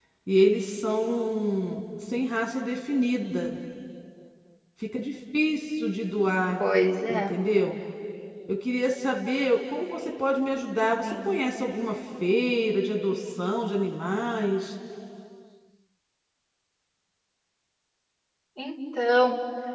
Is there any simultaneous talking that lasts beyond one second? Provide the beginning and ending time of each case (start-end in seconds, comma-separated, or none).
none